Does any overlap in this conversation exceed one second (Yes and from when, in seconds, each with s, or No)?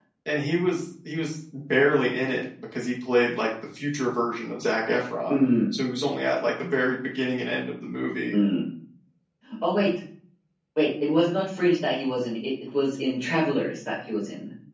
No